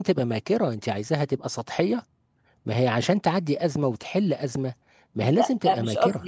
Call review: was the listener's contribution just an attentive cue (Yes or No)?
No